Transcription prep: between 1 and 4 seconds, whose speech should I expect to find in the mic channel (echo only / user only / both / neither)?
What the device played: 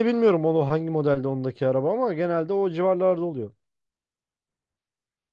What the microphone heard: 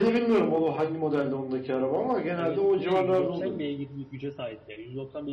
both